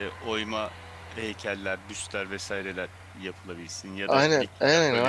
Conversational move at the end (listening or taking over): taking over